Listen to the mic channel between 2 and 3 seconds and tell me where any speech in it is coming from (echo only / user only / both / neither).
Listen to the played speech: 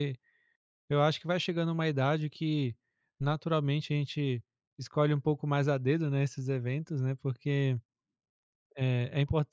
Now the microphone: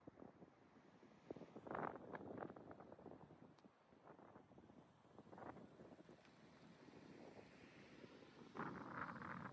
neither